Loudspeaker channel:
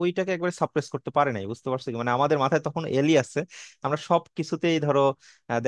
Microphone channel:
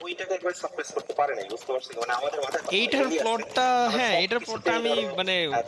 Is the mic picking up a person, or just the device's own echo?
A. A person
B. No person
A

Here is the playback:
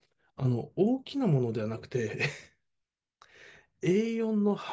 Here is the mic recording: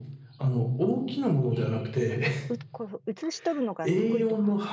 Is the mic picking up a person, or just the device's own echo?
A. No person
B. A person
B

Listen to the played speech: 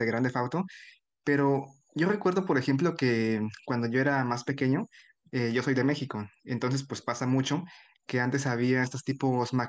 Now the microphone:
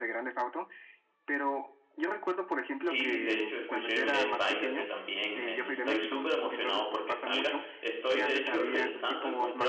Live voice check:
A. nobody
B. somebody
B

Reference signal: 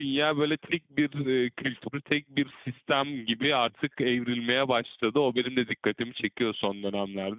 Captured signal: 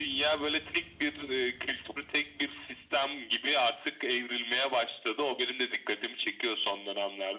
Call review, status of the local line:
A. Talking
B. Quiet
B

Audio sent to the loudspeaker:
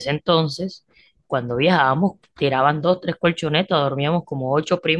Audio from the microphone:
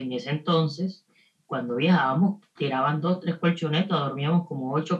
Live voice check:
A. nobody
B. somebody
A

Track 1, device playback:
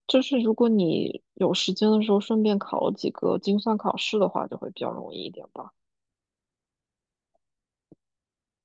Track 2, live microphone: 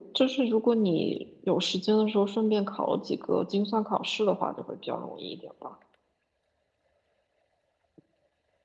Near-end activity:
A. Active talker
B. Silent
B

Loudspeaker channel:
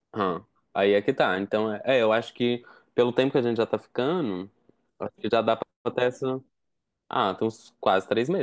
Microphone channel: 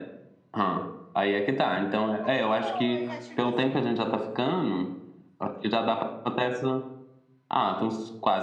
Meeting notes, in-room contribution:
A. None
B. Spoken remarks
B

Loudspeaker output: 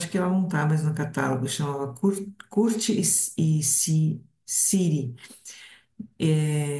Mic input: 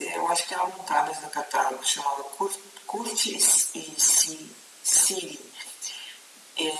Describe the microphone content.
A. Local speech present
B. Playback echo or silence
B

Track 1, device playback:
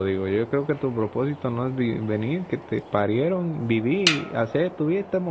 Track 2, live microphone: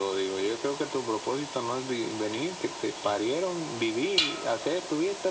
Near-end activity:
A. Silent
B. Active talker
A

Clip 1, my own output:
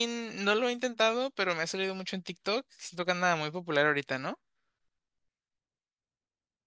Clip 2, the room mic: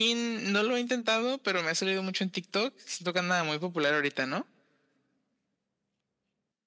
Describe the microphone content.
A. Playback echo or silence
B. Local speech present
A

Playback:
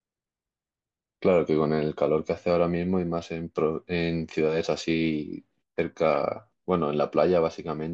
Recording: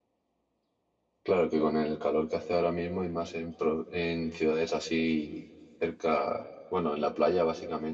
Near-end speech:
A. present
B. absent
B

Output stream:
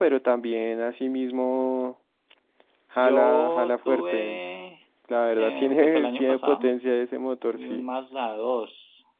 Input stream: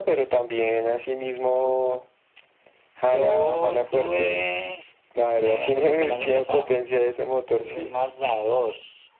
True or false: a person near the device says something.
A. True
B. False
B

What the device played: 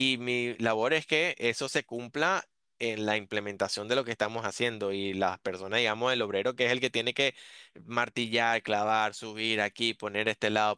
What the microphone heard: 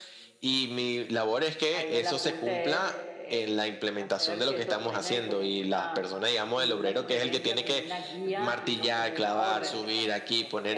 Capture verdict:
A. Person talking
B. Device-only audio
A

